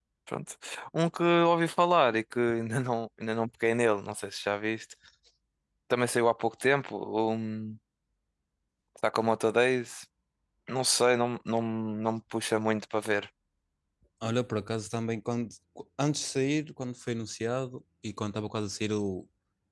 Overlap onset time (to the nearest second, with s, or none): none